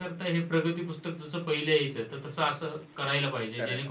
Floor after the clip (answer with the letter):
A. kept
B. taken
A